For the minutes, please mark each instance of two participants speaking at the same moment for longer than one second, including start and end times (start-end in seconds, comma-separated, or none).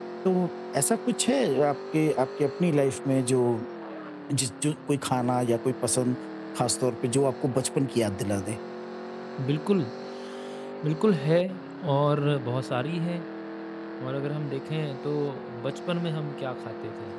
none